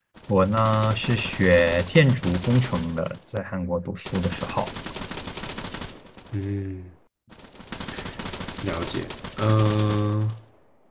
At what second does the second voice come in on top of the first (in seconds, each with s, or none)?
none